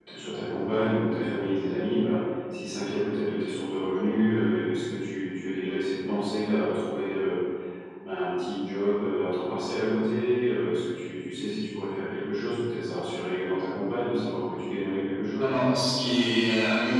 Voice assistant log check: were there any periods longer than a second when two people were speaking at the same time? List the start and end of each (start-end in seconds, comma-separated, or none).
none